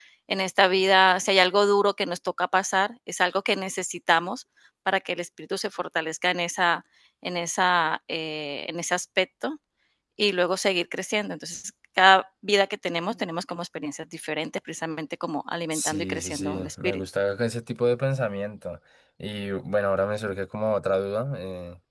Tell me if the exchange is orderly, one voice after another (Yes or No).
No